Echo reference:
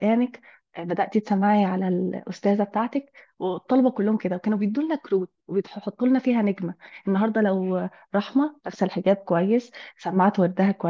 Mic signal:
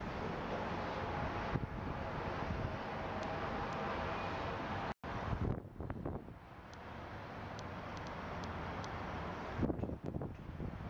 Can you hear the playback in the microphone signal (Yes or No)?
No